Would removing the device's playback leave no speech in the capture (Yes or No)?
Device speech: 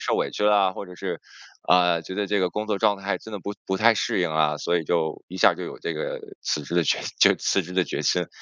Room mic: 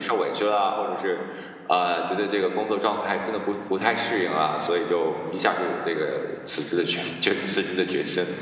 Yes